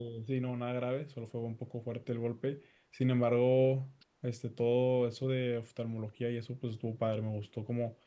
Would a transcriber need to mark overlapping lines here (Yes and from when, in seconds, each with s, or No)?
No